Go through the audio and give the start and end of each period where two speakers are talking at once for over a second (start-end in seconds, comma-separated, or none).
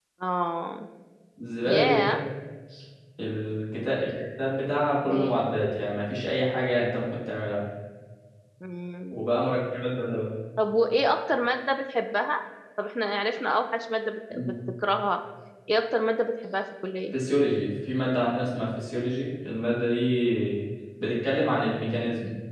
none